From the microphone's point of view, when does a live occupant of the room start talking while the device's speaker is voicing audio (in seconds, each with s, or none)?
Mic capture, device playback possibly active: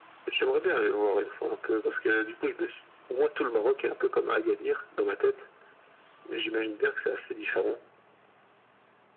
none